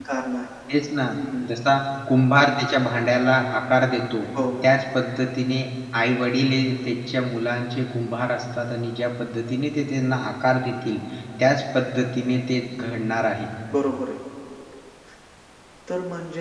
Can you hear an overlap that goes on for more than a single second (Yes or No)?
No